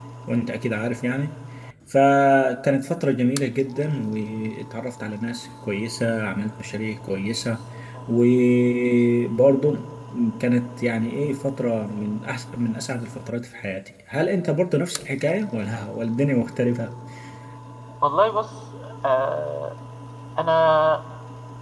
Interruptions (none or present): none